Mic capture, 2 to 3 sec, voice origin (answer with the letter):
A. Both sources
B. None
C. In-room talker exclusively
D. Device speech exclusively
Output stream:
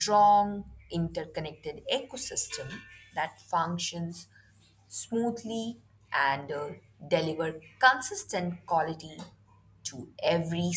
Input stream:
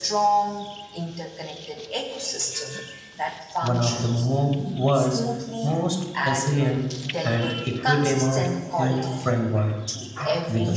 D